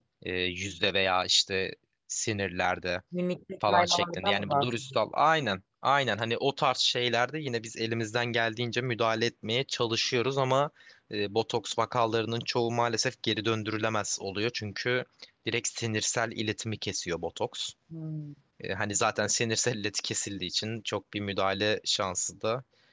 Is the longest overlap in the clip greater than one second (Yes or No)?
Yes